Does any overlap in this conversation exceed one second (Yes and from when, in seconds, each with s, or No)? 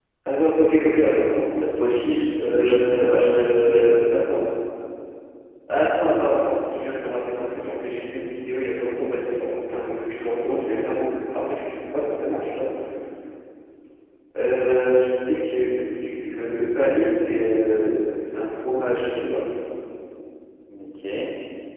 Yes, from 2.5 s